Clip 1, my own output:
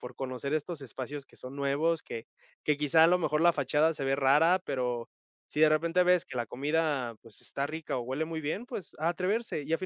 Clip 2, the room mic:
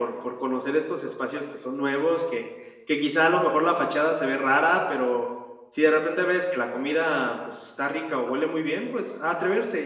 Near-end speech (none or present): none